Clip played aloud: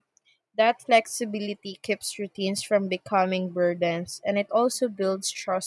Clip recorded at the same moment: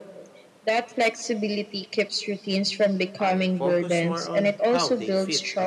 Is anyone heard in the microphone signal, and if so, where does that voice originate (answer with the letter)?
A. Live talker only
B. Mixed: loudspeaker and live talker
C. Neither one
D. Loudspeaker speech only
B